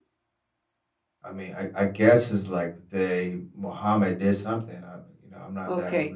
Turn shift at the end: Yes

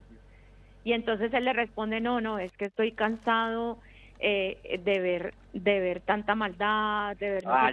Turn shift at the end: Yes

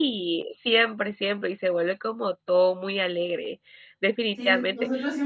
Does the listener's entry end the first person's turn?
Yes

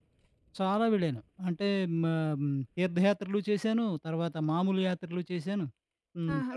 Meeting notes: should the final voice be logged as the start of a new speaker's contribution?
Yes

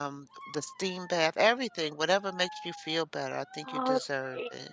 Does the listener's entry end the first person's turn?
Yes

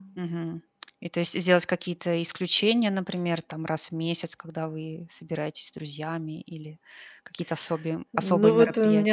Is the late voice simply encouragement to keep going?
No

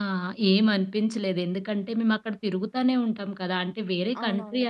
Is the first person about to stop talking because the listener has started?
No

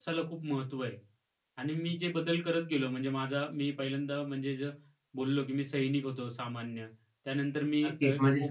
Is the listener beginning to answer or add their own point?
Yes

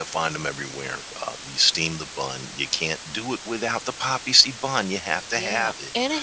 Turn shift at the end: Yes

